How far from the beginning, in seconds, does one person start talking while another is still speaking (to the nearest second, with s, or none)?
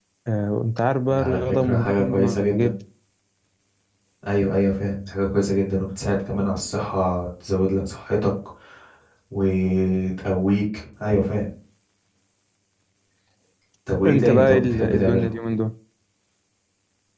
1 s